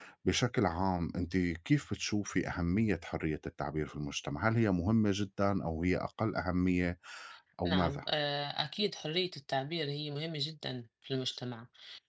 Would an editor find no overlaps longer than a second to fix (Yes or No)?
Yes